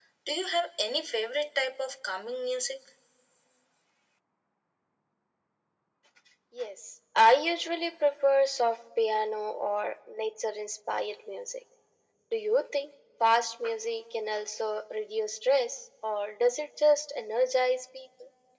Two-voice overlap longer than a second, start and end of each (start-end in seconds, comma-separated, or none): none